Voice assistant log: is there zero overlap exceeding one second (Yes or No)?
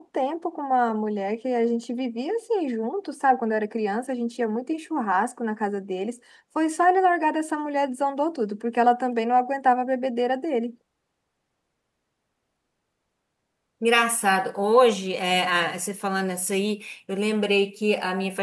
Yes